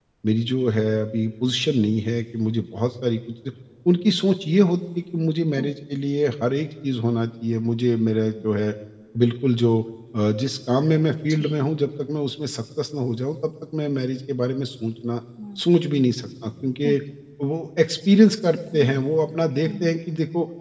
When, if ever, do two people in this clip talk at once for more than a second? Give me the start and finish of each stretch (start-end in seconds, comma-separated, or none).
none